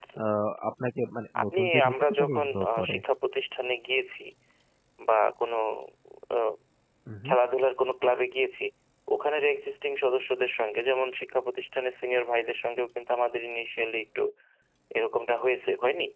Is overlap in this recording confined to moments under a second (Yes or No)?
No